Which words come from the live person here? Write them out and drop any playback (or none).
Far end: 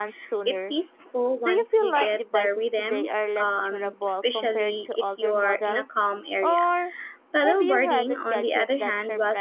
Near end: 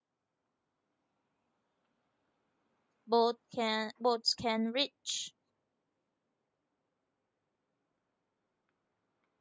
both can boats can reach.